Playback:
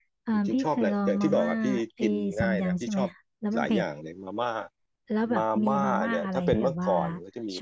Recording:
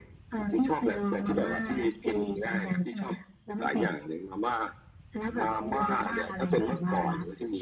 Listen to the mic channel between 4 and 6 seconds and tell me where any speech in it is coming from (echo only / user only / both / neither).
echo only